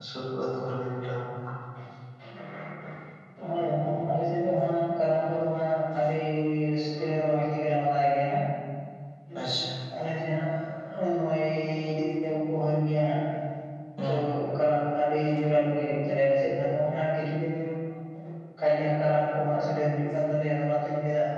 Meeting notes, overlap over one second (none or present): none